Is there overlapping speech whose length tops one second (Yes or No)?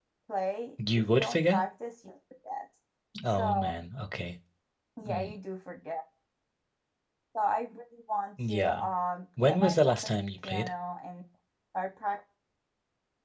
Yes